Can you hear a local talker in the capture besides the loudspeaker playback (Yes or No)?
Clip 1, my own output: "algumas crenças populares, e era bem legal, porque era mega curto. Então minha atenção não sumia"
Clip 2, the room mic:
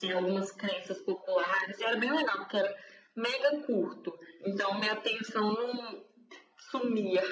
No